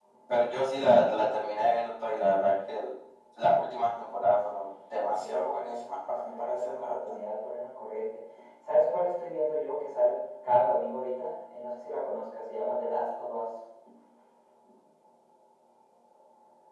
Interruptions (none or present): present